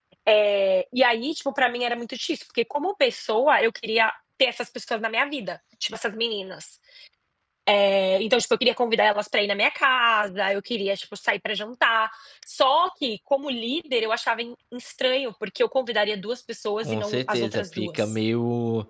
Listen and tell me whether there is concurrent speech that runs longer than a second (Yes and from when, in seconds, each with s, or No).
Yes, from 16.8 s